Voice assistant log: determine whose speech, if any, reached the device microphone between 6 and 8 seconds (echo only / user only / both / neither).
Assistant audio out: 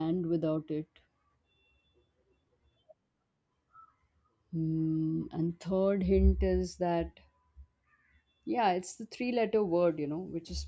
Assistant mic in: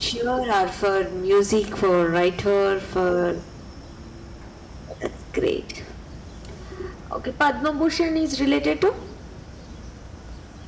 user only